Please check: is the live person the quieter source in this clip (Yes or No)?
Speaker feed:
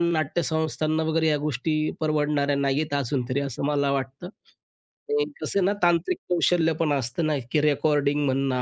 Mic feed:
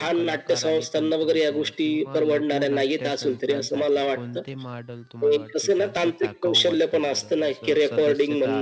Yes